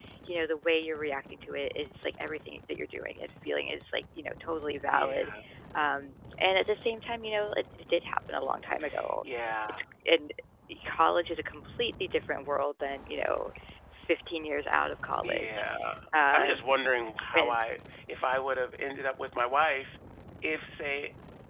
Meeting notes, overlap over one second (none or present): none